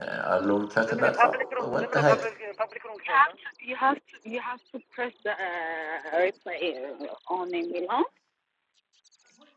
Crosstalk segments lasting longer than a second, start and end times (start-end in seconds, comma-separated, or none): 0.9-2.2